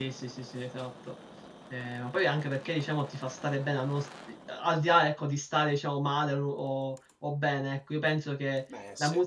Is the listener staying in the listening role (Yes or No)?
Yes